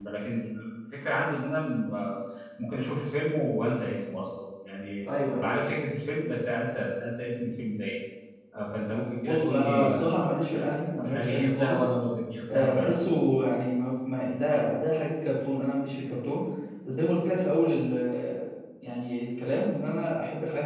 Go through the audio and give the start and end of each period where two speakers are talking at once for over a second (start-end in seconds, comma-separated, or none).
9.2-11.8